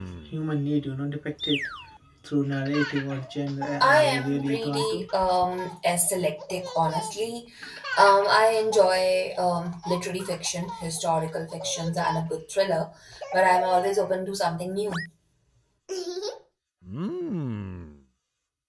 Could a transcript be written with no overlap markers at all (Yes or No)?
No